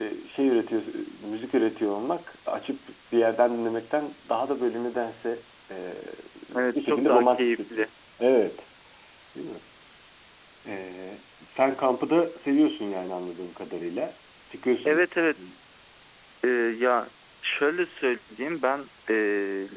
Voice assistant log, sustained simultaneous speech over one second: present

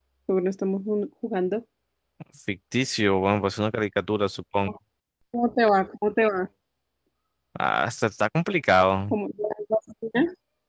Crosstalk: none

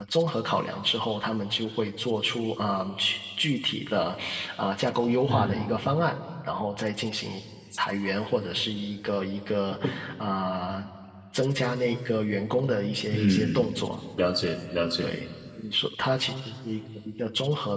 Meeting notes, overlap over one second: none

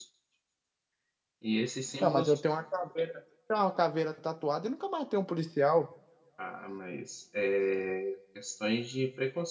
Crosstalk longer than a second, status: none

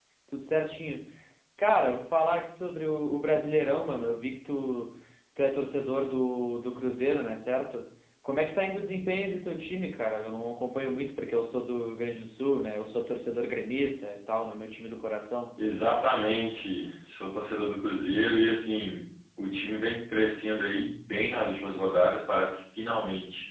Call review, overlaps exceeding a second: none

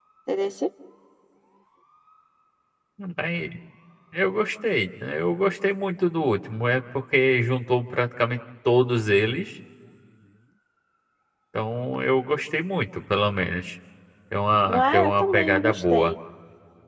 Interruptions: present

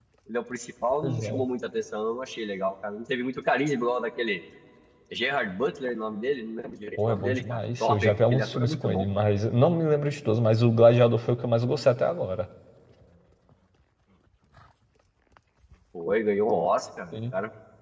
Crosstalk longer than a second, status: present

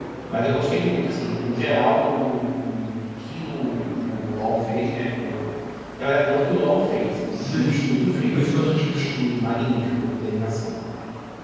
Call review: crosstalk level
present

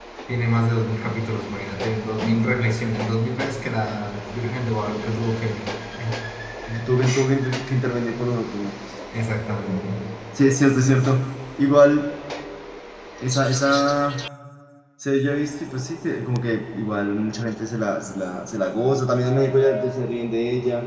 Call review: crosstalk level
none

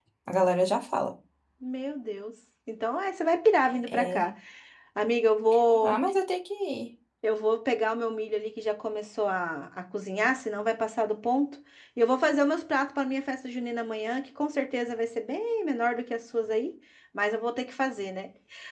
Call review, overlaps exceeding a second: none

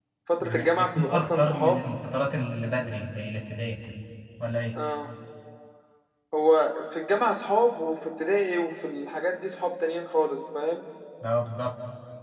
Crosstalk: present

